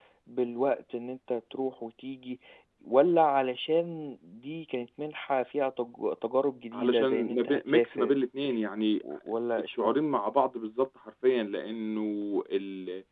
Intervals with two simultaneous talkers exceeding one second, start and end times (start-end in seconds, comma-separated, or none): 6.7-8.2